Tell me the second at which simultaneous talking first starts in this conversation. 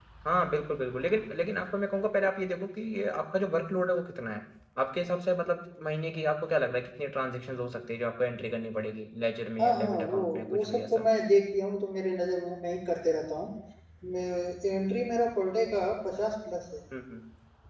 9.6 s

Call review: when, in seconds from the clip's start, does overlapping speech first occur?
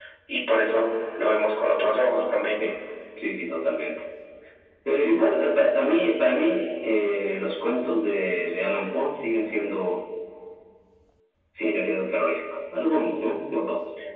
none

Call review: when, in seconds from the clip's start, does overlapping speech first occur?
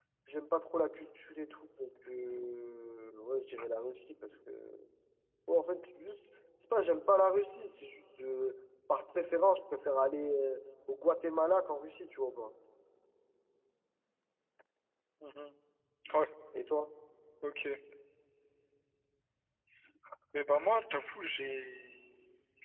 none

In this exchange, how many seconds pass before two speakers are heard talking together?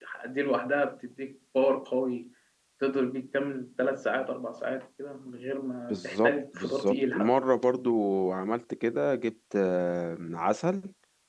5.9 s

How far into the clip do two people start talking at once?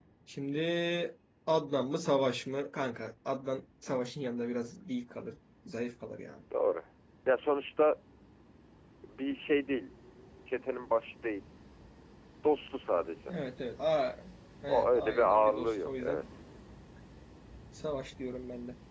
14.7 s

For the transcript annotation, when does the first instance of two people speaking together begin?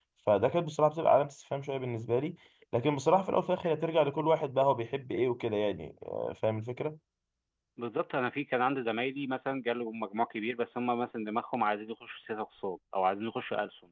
none

